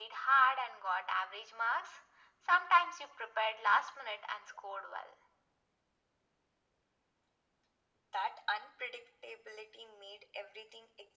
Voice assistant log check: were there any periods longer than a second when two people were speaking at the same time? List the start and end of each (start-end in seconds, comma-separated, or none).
none